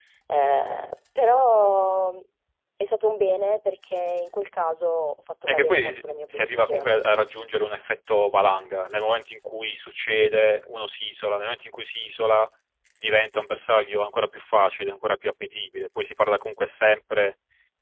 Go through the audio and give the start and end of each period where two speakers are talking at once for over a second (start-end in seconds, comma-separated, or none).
5.5-7.0